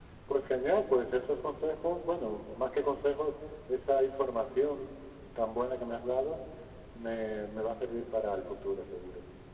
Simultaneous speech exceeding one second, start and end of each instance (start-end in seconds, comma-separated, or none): none